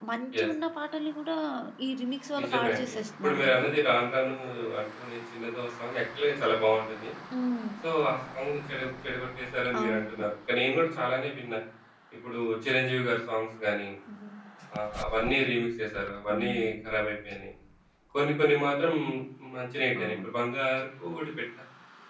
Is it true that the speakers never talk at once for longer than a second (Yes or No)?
No